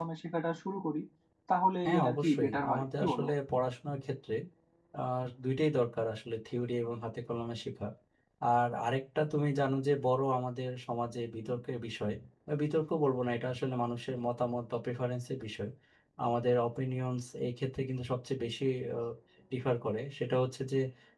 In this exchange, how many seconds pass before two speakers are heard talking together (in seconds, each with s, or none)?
1.8 s